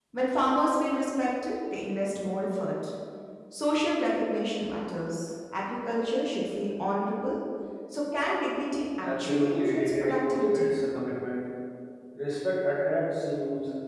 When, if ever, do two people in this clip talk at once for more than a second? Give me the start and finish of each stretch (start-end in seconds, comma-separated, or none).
9.0-10.7